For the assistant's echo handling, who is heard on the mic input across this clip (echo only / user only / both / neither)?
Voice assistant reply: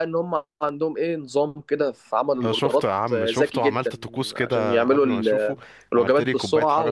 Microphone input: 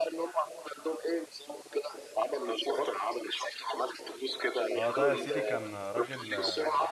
both